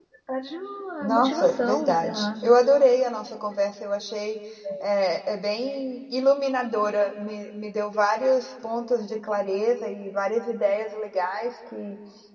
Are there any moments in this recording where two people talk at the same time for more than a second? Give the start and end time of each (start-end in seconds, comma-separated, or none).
1.0-2.3